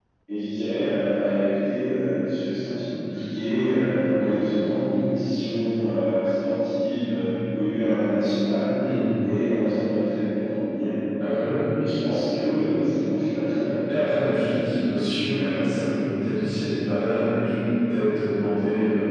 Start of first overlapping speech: none

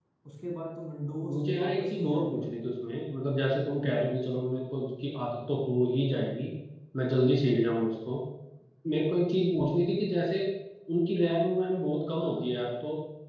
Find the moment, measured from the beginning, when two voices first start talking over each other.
1.2 s

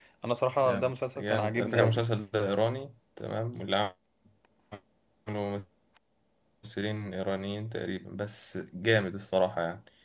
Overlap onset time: 0.6 s

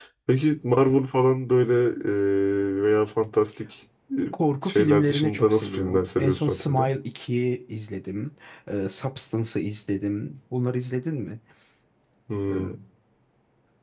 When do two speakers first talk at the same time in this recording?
4.6 s

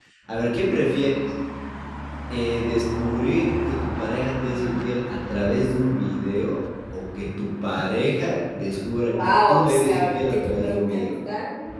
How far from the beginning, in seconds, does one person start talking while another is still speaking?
9.1 s

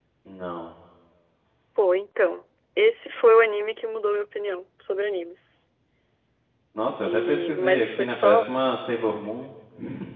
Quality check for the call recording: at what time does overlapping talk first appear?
7.0 s

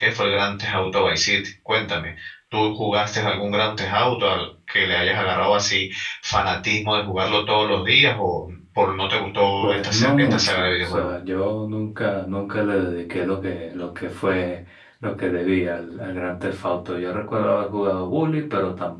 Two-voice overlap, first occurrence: 9.6 s

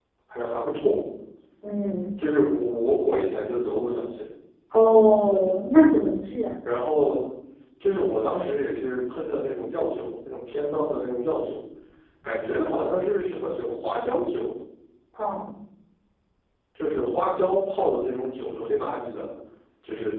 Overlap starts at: none

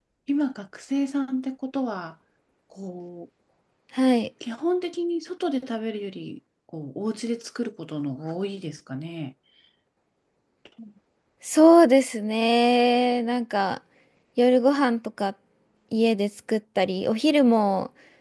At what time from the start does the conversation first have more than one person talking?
none

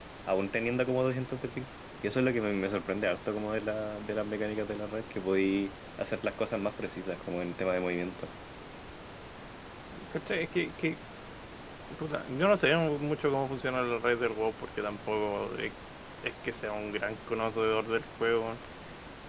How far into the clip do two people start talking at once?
none

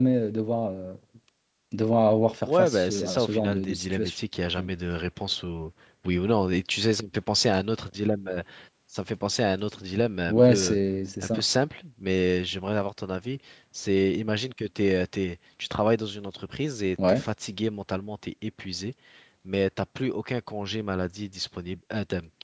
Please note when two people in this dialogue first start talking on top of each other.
2.5 s

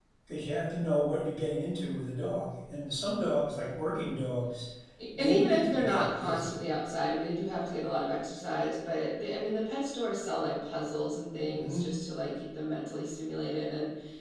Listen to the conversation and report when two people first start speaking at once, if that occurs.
5.2 s

